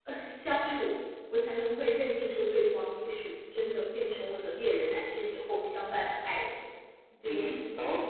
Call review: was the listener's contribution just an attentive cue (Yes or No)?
No